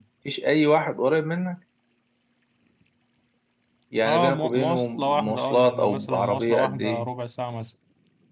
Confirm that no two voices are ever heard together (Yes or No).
No